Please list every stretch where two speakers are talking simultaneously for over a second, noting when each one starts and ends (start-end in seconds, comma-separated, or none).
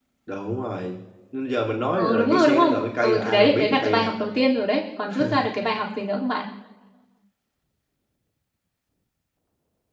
2.0-4.2